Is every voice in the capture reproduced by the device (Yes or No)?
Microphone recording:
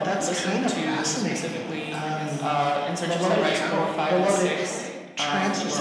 No